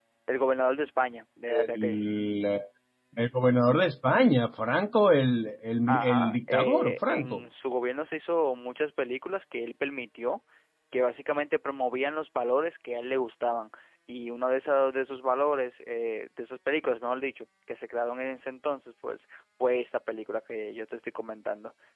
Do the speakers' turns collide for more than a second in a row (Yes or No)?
Yes